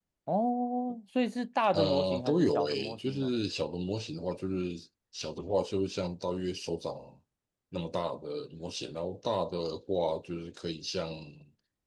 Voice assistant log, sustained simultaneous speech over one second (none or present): present